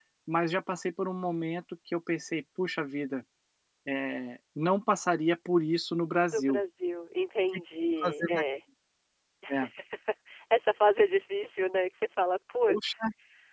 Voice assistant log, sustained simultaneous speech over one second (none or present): none